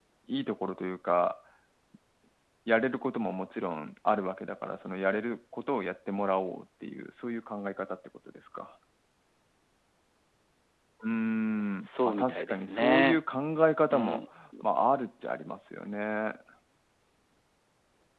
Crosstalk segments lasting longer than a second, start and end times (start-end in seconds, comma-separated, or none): 11.8-13.2